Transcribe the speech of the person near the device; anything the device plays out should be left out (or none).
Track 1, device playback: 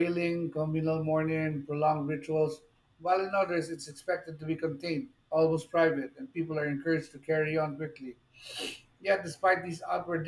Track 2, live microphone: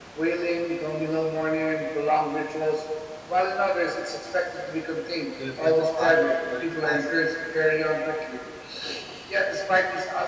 universal pattern governs us.